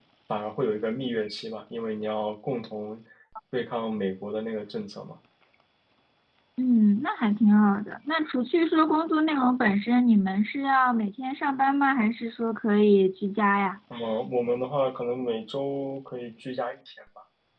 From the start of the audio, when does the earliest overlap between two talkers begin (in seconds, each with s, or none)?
none